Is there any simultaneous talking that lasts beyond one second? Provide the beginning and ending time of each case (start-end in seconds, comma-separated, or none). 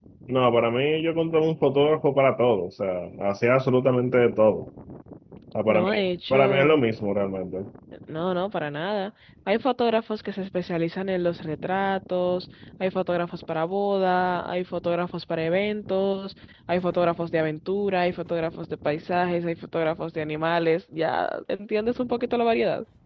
none